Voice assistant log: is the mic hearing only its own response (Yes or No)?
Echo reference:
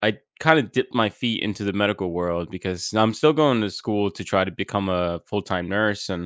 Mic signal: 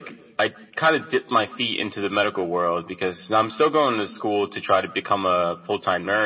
Yes